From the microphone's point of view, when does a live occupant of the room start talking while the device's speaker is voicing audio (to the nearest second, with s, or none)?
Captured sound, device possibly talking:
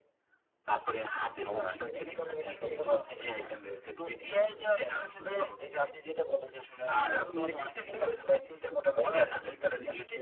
2 s